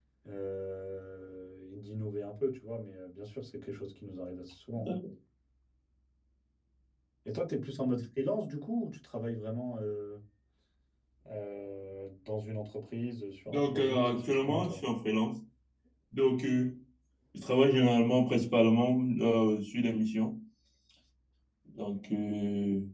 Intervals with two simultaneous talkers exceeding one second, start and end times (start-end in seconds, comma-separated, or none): 13.5-14.8